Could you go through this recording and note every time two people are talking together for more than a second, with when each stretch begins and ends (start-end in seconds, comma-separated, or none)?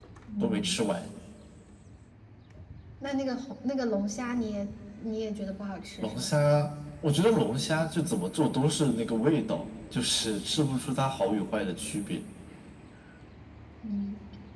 none